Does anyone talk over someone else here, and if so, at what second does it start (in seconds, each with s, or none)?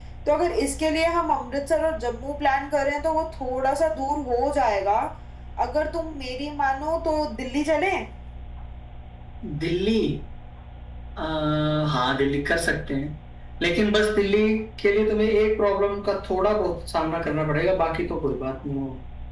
none